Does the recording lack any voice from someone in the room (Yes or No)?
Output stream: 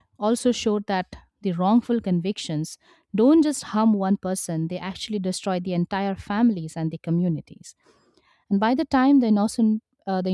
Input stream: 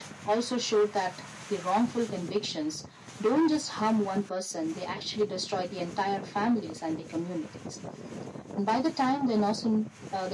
Yes